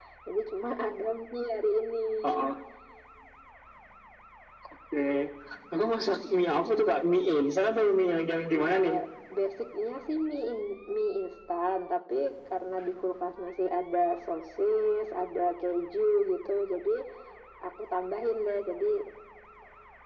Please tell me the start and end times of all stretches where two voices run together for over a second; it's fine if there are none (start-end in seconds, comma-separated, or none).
none